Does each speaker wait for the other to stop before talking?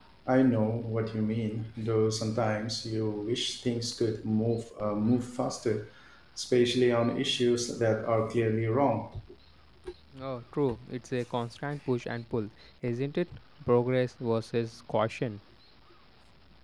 Yes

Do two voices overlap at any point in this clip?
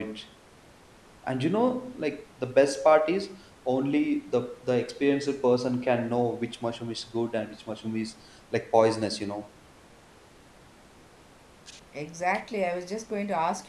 No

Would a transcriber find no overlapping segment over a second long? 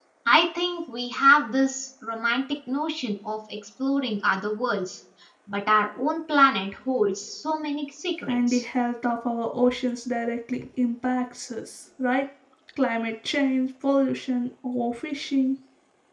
Yes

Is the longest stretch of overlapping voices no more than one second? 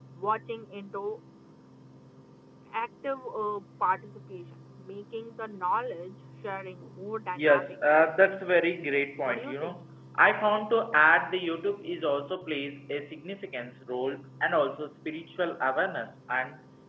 No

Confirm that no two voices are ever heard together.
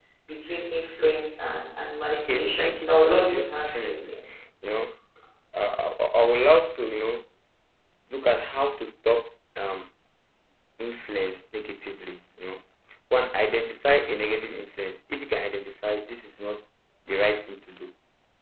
No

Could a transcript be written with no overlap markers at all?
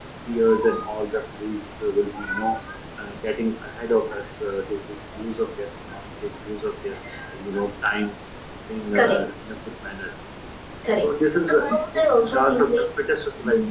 No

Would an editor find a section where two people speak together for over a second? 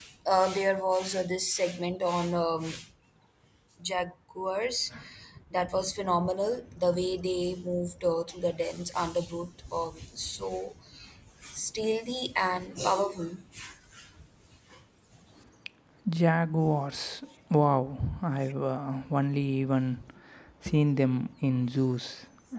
No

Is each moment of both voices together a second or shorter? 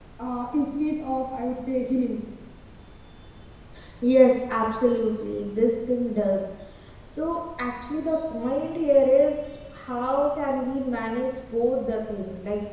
Yes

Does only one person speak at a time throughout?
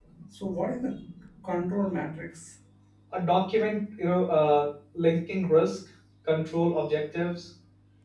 Yes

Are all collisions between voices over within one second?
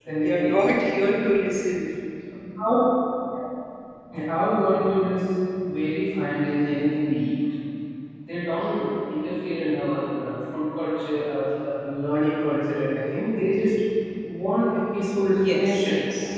Yes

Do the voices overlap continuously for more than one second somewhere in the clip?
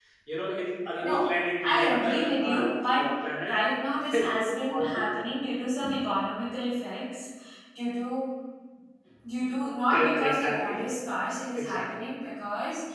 Yes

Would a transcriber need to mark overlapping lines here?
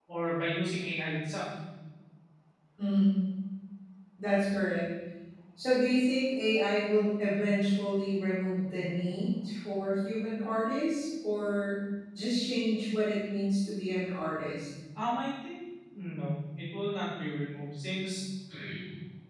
No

